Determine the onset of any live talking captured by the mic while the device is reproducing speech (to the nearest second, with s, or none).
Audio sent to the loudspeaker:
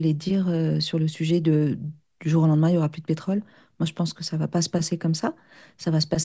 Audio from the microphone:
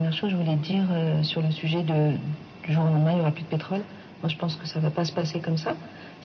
none